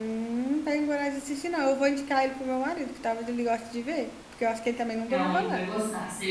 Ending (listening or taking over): taking over